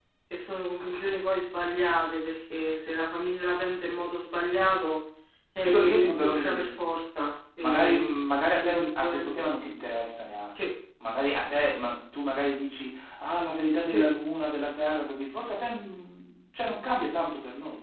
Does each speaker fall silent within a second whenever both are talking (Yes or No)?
No